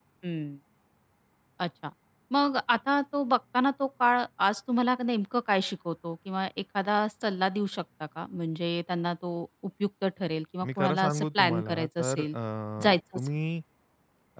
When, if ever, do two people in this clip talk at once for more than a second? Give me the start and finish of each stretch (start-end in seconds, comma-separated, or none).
10.7-12.3